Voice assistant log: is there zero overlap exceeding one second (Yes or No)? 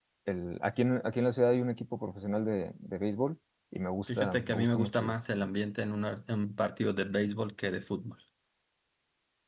No